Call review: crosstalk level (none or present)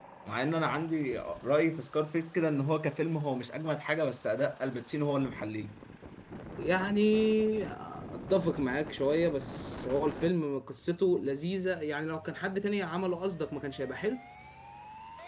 none